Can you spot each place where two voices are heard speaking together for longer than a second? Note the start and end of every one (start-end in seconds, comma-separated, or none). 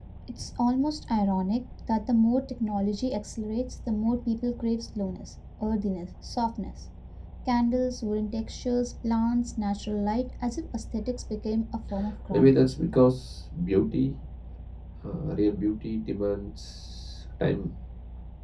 none